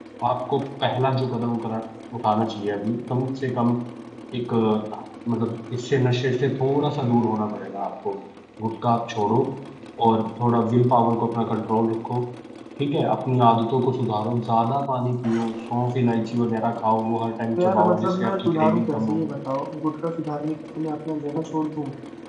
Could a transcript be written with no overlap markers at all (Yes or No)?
No